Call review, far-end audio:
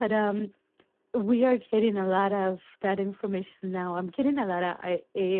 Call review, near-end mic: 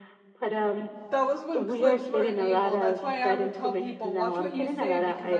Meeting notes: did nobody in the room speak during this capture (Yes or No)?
No